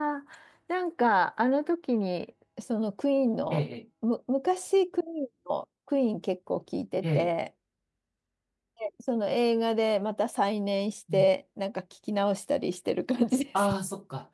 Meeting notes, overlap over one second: none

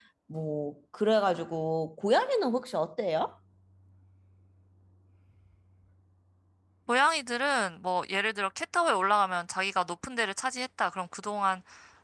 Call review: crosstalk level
none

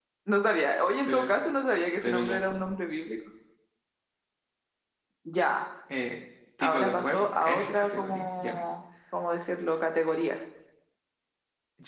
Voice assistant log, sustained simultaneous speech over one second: present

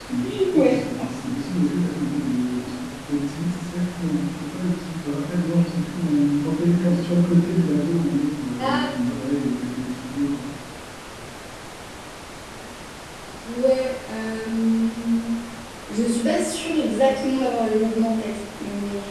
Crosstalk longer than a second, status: none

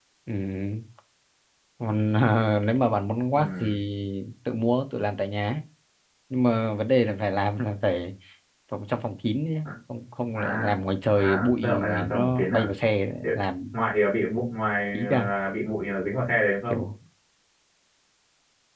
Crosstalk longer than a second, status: present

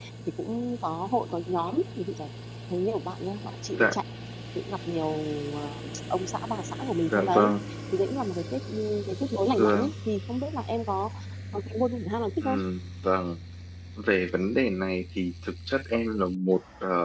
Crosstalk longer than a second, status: none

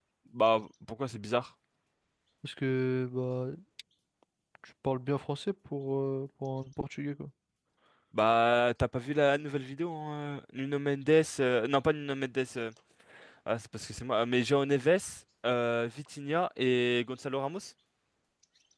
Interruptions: none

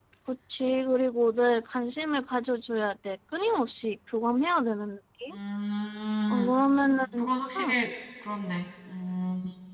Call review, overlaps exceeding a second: none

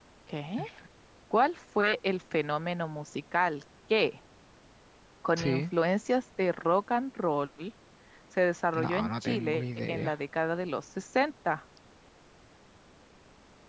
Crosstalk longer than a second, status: present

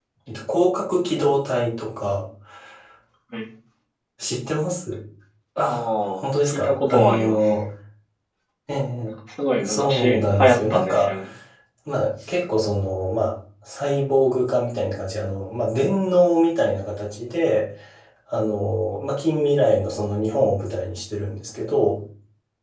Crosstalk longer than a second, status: present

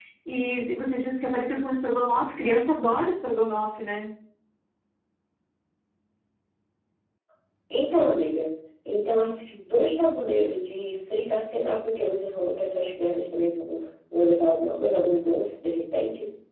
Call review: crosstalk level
none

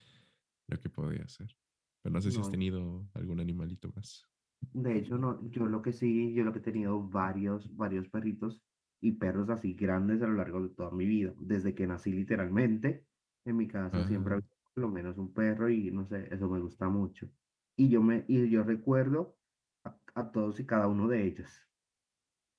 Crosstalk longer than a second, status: none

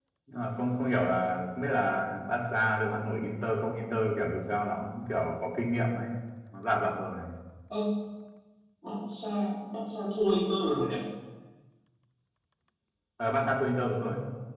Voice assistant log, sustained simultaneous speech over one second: none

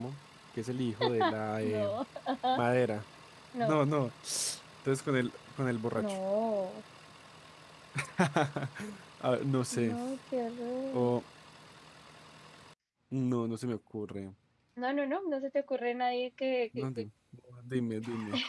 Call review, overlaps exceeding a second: none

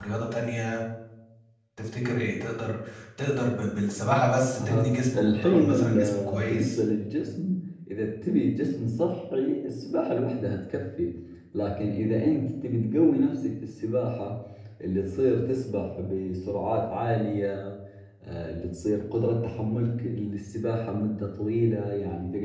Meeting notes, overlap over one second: present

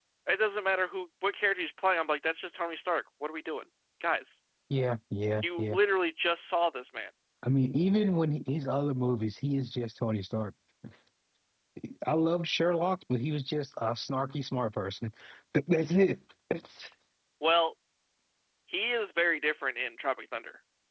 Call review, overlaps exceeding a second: none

